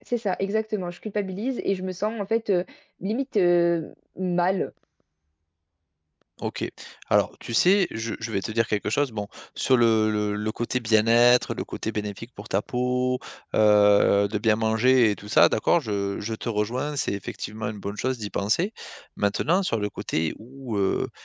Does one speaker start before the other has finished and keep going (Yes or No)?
No